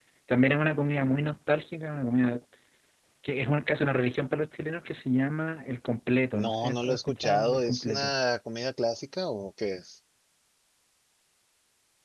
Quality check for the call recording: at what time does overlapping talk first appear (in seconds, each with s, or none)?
6.3 s